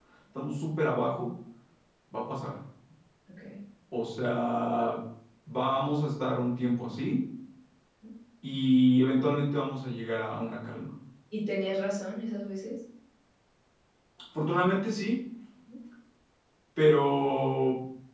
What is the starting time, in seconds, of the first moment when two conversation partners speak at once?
none

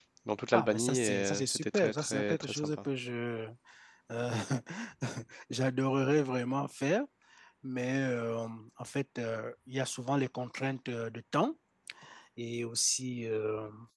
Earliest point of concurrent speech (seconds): 0.5 s

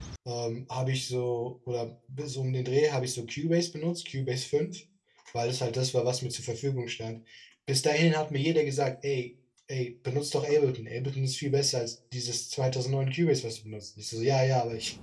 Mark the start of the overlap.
none

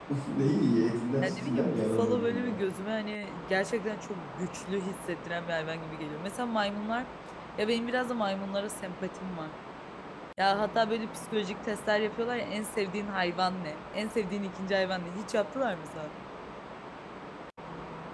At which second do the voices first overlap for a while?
1.2 s

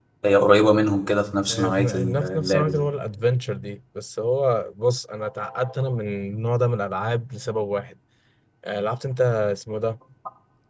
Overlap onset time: 1.5 s

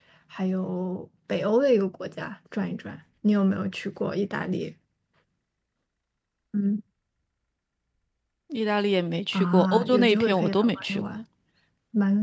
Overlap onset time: 9.3 s

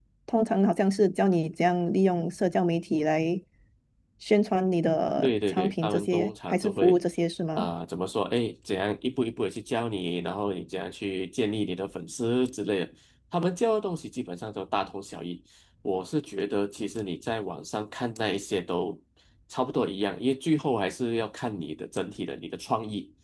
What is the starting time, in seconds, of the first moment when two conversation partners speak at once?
5.2 s

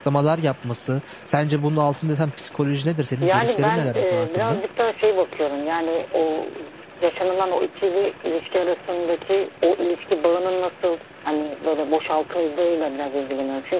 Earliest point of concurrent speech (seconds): 3.2 s

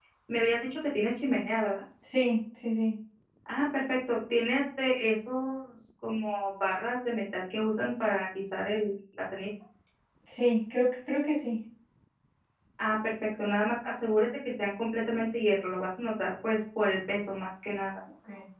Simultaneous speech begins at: none

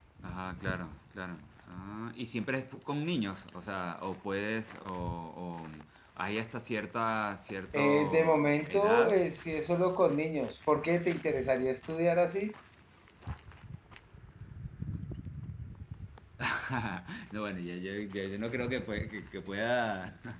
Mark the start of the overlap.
7.7 s

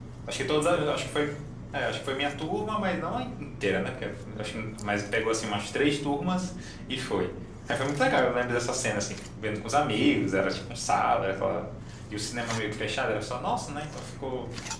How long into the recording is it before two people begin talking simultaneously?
none

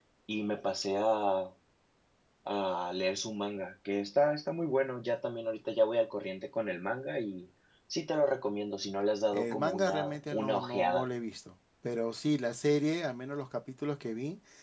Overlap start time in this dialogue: 9.3 s

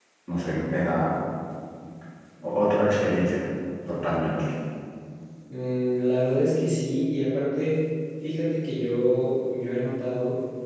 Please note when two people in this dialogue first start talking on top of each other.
none

